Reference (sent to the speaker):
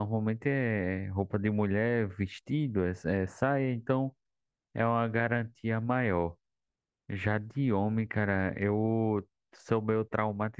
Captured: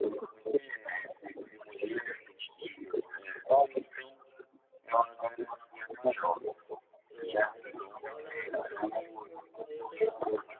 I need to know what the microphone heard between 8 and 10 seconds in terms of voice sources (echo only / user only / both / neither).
both